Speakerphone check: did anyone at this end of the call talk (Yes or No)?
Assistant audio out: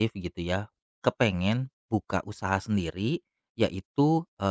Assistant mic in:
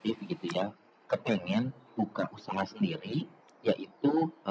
No